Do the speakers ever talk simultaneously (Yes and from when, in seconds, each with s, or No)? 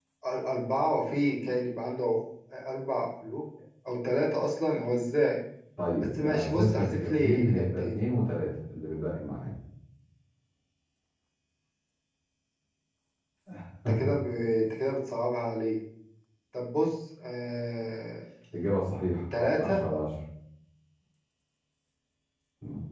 Yes, from 6.0 s